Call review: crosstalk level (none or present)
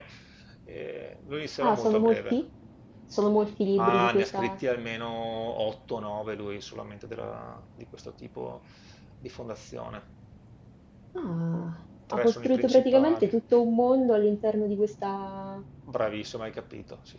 present